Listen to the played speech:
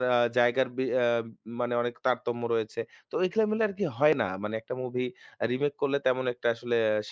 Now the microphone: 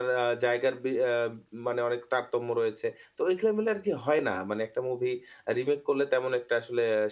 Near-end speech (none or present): none